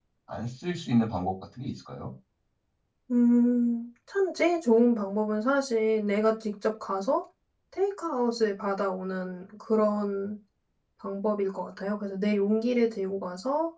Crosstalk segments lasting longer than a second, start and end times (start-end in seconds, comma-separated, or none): none